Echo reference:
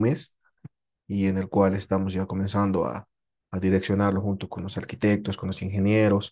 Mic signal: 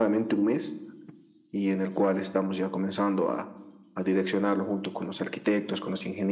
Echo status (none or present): present